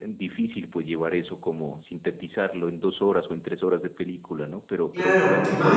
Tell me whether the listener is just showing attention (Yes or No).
No